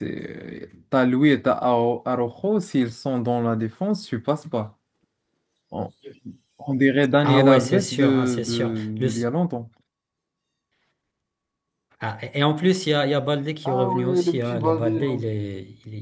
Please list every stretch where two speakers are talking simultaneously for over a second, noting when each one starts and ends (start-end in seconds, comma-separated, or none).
7.2-9.2, 13.7-15.1